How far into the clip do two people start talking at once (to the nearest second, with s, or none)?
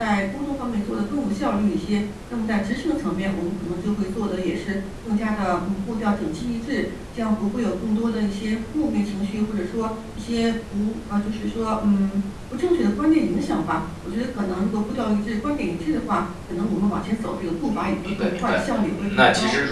18 s